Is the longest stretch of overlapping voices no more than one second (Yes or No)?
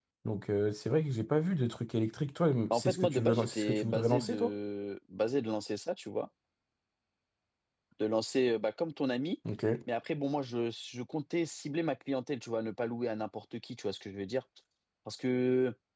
No